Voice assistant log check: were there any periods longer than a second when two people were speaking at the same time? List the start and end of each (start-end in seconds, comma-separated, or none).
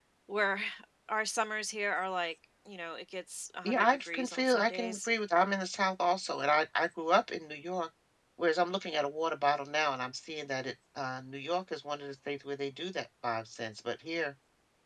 3.6-5.1